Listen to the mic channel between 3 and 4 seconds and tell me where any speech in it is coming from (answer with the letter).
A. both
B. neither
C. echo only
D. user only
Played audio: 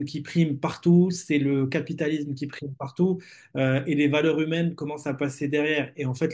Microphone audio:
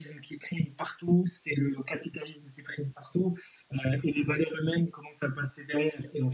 C